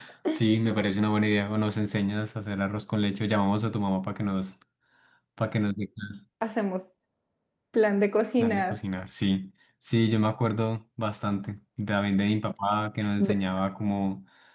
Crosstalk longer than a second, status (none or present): none